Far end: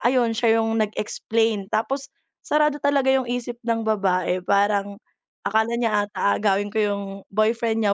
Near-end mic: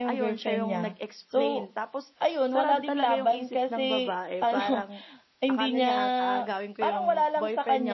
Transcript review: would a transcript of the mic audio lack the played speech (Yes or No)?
No